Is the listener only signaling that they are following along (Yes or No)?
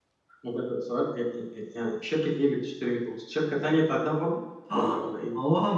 No